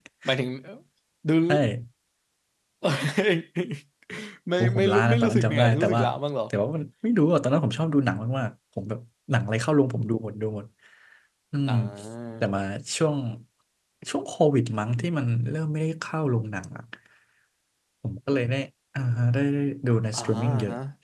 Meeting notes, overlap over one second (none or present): present